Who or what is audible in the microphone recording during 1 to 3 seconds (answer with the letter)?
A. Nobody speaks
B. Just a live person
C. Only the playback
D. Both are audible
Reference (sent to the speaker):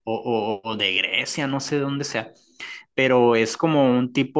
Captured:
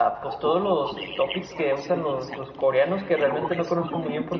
D